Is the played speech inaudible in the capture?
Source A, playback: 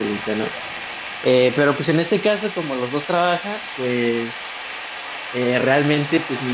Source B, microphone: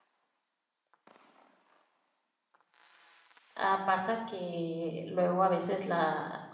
Yes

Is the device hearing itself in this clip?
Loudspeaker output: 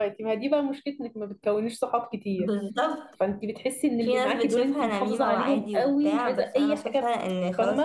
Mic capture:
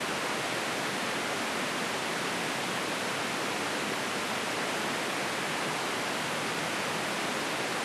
No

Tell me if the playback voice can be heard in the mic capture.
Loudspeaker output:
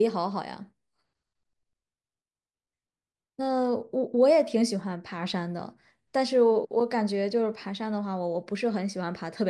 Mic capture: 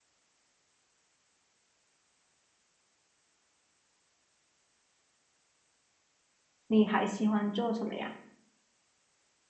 No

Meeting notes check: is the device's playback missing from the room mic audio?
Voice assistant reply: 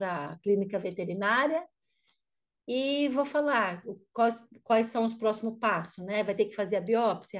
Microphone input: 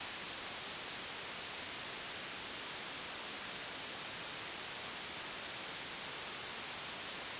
Yes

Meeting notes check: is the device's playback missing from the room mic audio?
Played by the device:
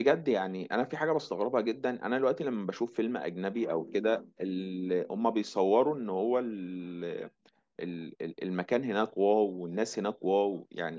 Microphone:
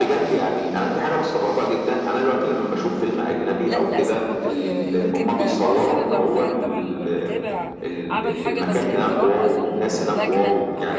No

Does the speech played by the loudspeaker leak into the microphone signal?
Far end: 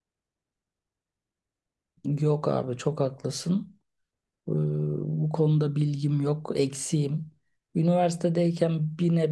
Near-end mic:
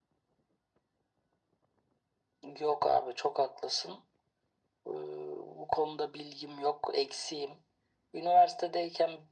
Yes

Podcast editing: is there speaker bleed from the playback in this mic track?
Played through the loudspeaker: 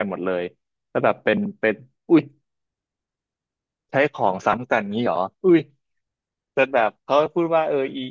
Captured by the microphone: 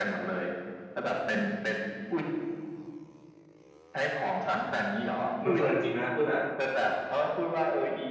Yes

